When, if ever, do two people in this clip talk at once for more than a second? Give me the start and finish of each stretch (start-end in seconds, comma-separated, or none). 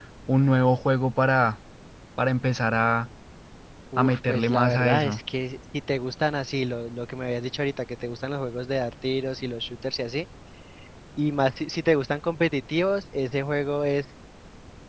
4.0-5.2